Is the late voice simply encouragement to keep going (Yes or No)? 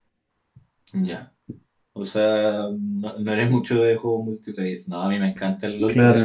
Yes